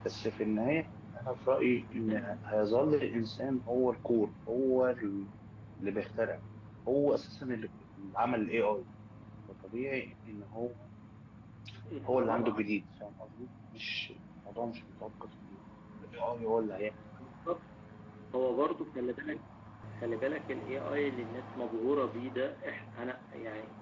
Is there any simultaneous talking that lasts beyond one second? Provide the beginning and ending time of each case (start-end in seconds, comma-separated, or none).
none